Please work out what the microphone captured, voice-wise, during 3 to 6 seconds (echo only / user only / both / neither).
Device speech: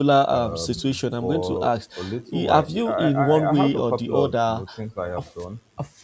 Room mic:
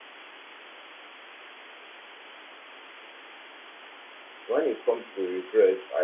user only